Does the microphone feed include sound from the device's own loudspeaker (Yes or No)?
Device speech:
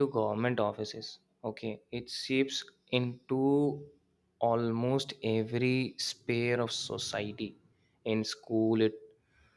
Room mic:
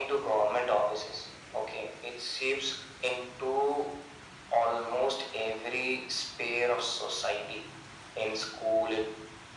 Yes